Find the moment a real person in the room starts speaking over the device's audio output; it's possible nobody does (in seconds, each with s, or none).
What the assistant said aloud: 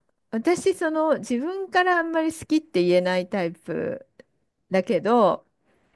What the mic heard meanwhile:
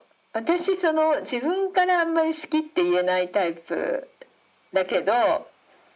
none